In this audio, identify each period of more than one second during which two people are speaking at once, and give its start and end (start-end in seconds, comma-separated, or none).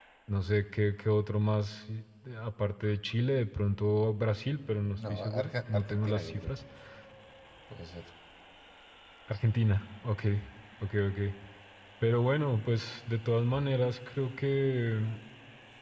5.0-6.5